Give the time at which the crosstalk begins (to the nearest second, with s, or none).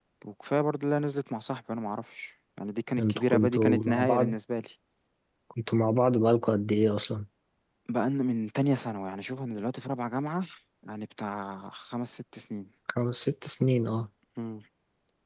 3 s